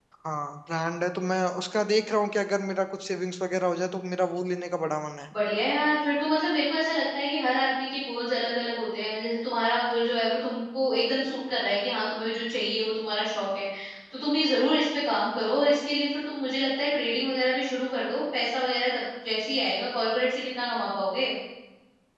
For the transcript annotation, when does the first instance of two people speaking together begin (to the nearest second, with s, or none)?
none